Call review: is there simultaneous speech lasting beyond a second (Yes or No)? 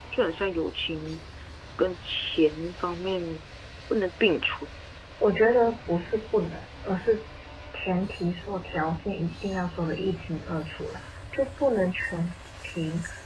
No